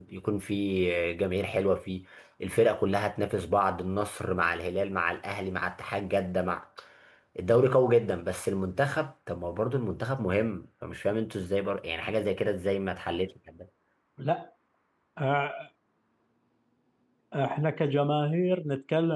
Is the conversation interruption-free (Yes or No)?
Yes